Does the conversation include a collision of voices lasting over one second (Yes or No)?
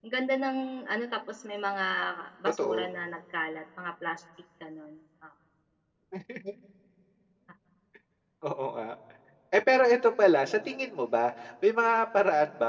No